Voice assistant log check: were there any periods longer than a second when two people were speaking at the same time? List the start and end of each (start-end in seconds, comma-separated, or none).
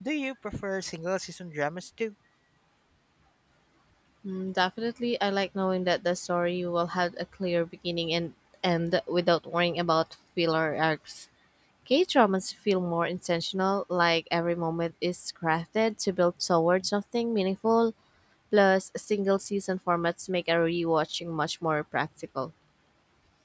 none